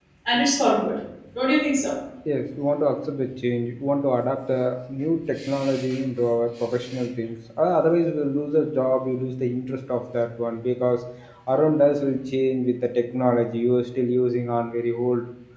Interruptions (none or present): none